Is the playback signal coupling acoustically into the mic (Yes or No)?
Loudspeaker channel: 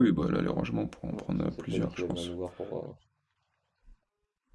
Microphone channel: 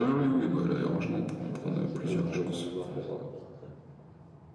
Yes